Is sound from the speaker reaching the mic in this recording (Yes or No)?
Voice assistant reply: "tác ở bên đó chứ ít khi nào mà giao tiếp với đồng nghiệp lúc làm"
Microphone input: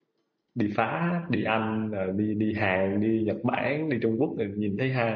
No